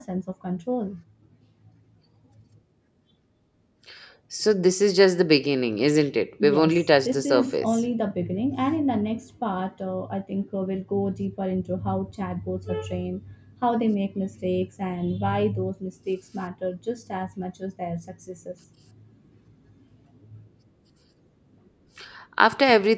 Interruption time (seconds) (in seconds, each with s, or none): 6.4 s